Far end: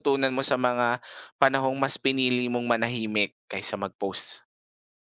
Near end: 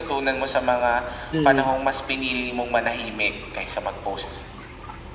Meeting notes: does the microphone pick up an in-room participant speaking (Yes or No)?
Yes